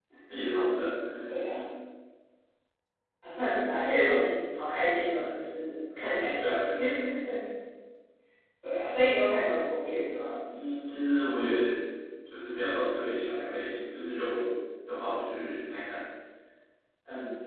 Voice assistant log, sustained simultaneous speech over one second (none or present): none